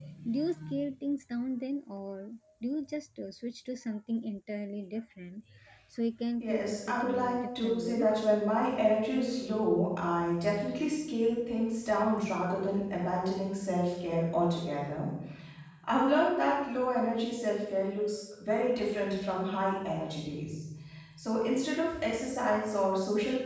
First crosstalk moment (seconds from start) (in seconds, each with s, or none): 6.4 s